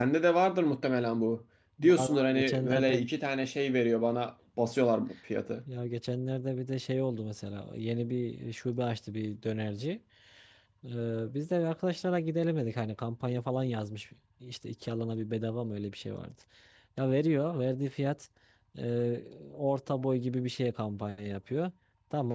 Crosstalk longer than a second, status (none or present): present